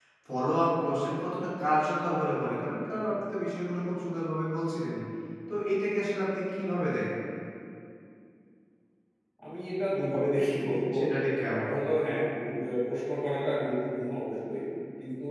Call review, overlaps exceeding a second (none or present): none